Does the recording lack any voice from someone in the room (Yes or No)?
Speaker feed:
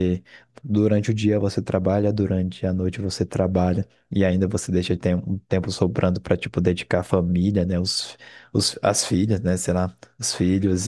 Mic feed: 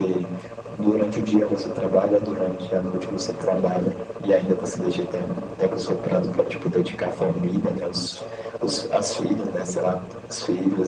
Yes